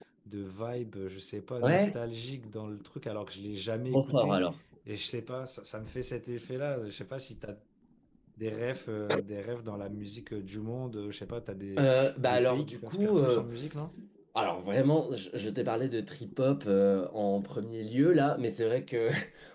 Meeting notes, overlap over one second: present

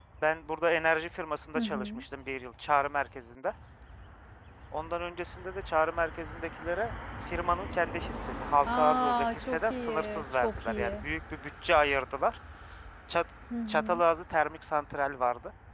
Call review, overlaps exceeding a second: present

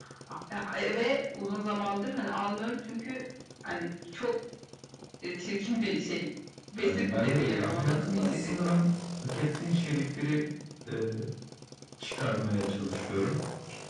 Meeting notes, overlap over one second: present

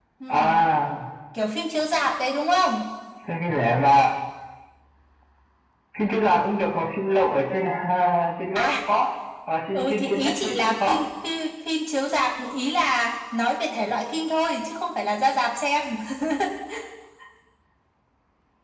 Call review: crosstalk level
present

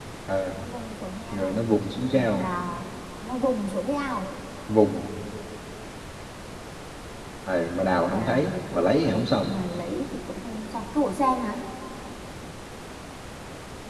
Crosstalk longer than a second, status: present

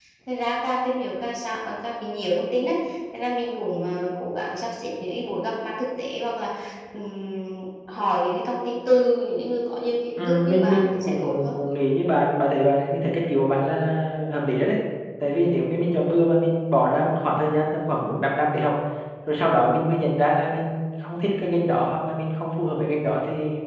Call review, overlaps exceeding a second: present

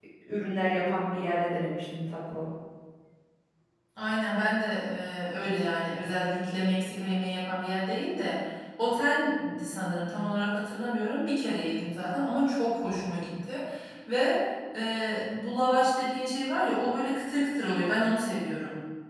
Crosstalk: none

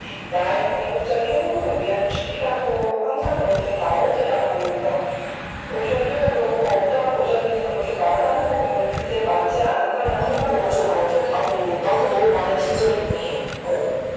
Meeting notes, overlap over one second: present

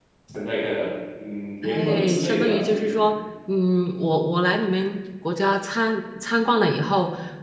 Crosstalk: present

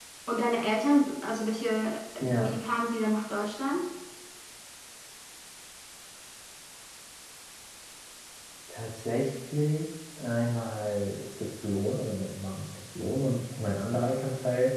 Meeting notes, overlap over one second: none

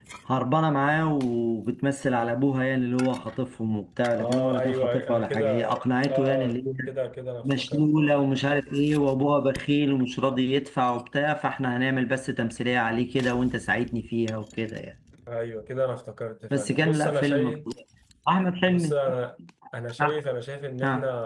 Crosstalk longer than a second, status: present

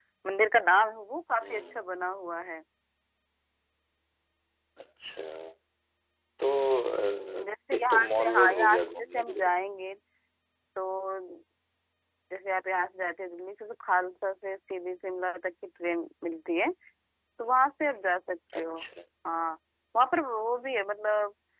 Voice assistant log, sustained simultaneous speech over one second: present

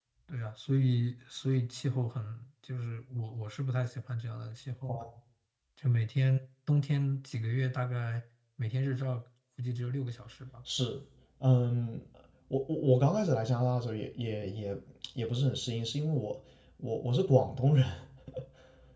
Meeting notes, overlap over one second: none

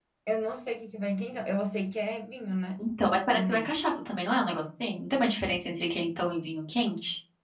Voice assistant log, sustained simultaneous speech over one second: none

